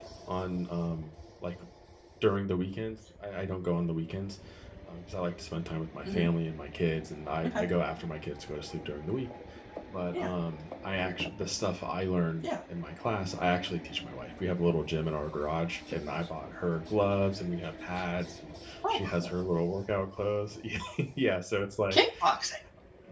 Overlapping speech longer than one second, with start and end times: none

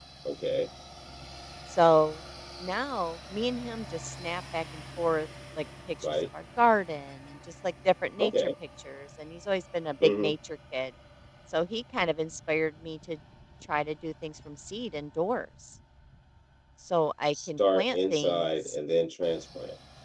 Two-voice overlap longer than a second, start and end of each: 17.3-18.8

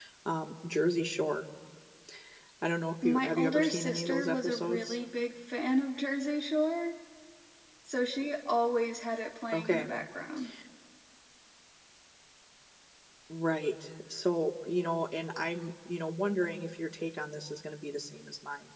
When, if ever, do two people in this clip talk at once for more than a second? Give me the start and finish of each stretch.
3.0-5.0

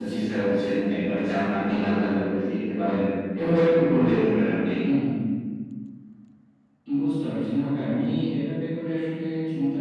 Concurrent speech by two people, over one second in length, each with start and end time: none

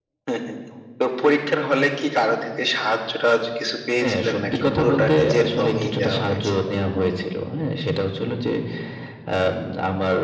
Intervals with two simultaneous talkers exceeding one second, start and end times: 4.0-6.7

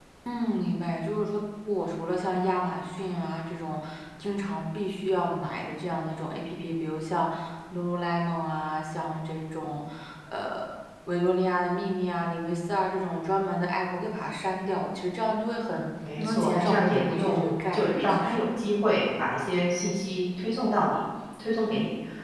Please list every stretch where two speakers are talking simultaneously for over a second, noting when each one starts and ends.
16.2-18.4

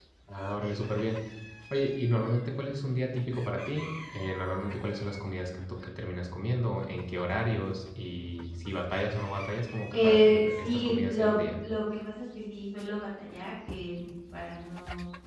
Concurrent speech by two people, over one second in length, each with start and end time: 9.9-11.3

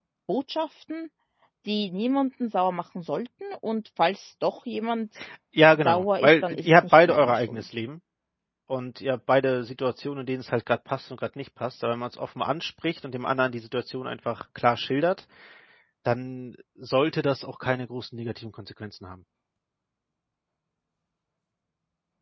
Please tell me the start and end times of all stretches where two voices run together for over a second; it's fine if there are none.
5.8-7.6

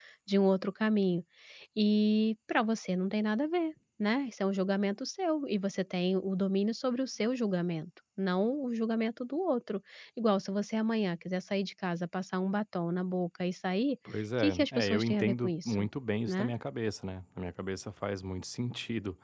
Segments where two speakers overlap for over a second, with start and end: 14.4-15.9

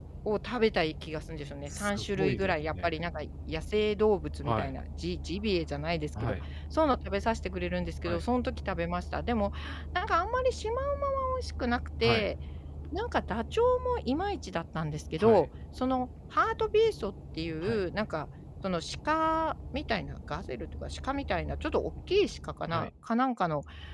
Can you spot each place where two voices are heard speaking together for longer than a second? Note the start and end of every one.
1.7-2.9

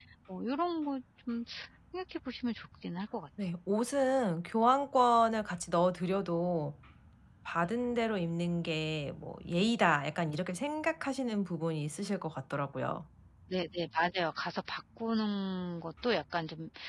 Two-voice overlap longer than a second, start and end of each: none

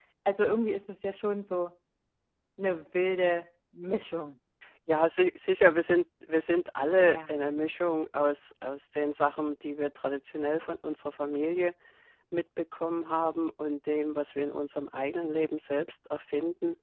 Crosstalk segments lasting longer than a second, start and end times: none

